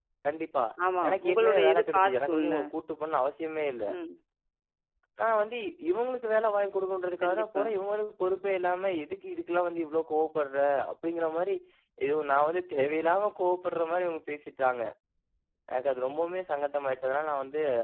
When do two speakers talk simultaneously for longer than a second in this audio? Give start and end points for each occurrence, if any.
1.1-2.5

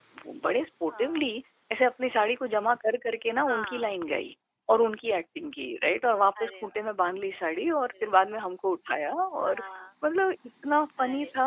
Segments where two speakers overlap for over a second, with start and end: none

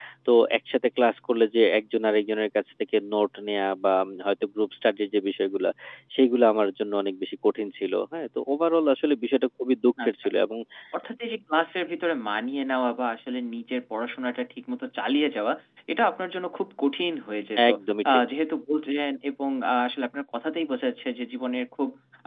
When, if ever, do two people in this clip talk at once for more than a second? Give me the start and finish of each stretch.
none

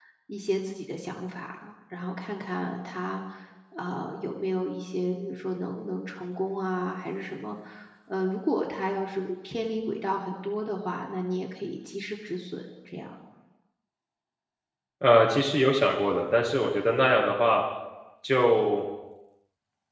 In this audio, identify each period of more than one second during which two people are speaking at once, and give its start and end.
none

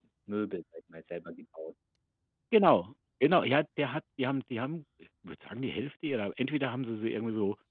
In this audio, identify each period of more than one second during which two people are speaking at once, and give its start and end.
none

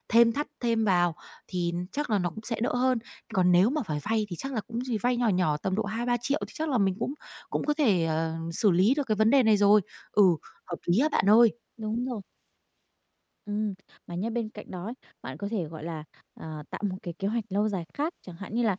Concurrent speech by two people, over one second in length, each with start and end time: none

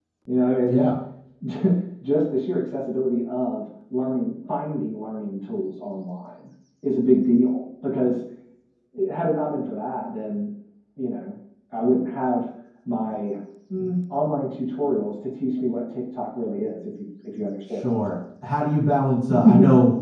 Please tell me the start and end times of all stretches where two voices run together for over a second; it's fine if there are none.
none

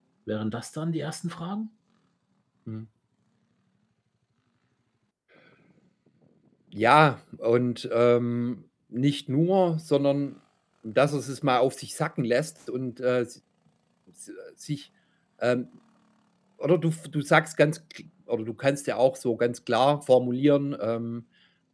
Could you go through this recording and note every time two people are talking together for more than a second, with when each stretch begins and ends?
none

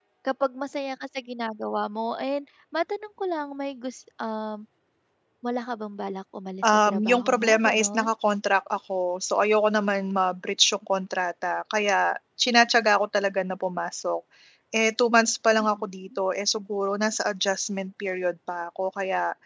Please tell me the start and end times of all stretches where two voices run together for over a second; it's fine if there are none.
6.6-8.1

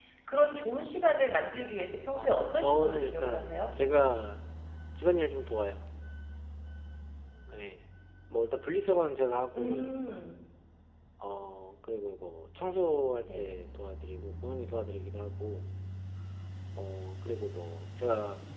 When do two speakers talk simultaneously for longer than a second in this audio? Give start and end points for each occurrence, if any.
2.2-3.6

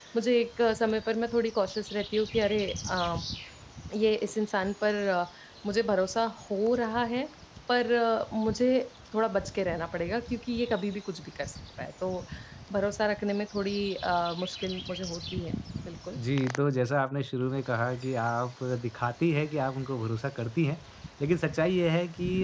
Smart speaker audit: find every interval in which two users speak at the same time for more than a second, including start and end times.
none

